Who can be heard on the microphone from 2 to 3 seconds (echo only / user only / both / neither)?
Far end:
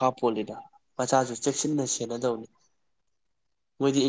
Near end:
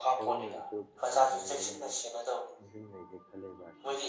both